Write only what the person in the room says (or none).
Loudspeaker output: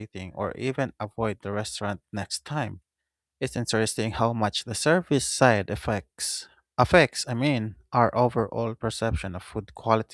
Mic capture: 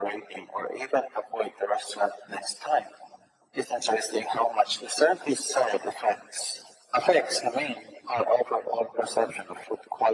none